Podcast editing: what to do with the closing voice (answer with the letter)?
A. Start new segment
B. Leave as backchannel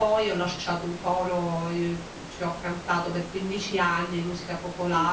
B